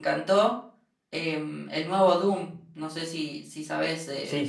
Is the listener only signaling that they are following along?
No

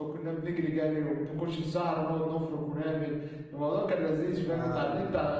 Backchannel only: Yes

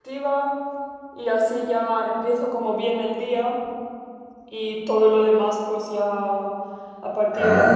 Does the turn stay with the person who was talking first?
Yes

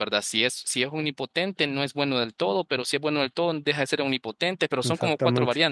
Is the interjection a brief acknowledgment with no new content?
No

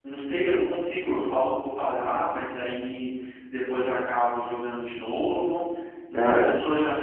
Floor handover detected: No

